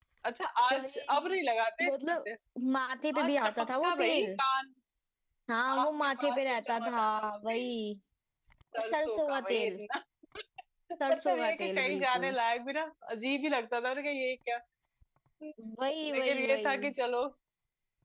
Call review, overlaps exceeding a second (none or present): present